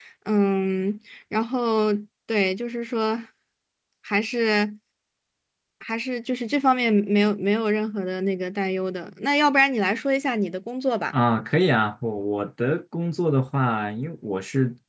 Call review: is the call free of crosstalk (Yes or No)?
Yes